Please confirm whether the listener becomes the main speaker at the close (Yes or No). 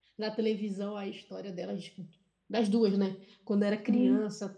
No